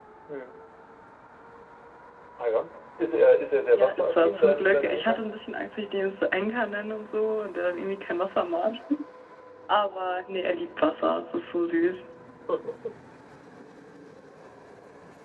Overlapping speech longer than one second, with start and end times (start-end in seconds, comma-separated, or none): 3.8-5.2